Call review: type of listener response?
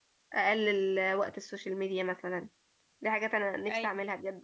listening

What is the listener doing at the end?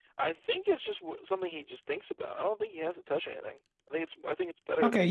taking over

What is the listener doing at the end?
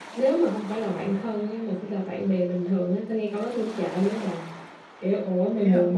listening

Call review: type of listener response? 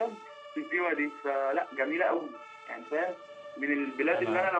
listening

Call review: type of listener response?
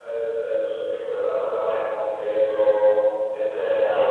listening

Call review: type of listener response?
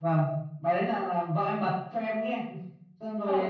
listening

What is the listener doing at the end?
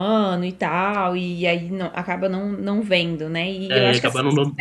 taking over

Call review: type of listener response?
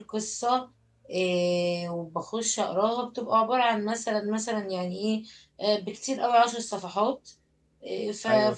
listening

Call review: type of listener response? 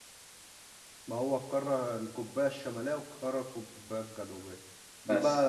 listening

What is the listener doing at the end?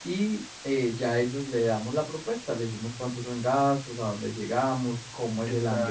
listening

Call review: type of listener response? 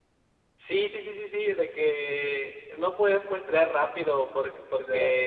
listening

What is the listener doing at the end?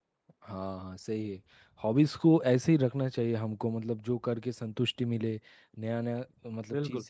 listening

